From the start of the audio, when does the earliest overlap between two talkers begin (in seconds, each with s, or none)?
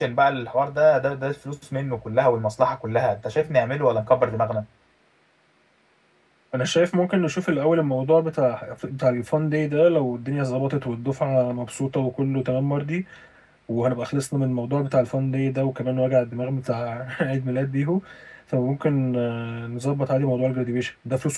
none